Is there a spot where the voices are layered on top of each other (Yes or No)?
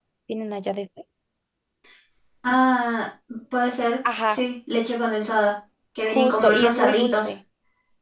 Yes